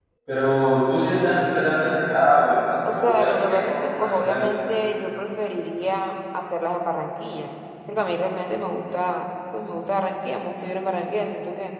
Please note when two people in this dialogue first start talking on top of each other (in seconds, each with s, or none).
2.9 s